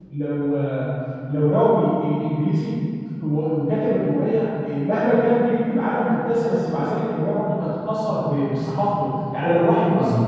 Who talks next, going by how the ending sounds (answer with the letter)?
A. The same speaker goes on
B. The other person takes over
A